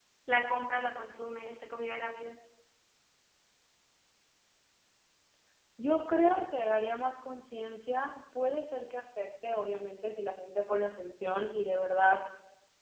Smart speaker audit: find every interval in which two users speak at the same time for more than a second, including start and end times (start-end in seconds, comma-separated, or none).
none